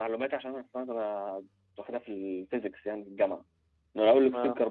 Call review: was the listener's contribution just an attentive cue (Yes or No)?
Yes